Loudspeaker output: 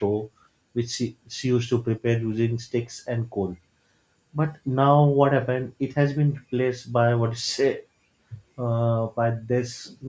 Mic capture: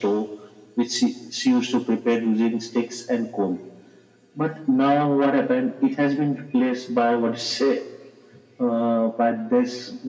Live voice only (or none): none